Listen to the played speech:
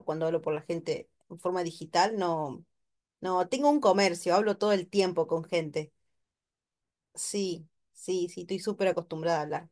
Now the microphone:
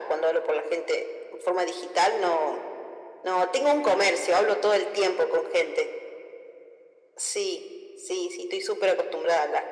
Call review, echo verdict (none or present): present